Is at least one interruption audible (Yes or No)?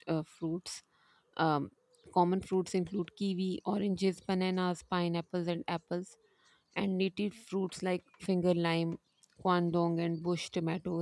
No